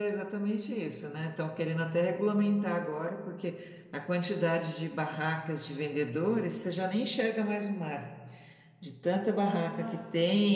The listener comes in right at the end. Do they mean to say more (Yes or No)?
No